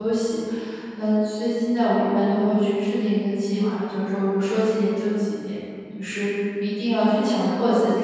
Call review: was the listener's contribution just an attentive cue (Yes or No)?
No